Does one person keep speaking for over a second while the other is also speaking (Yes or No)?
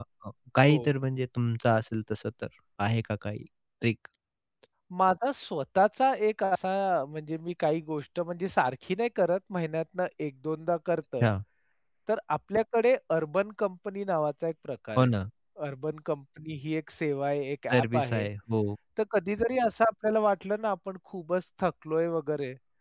No